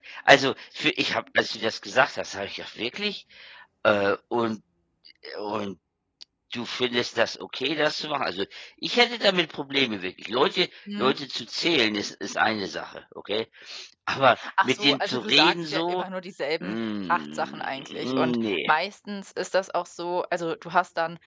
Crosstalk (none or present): present